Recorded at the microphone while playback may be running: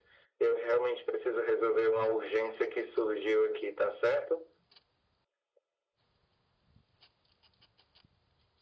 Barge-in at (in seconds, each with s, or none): none